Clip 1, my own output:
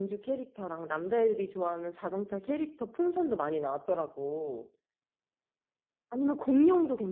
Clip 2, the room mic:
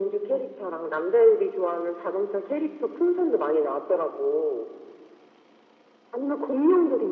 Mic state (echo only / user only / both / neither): echo only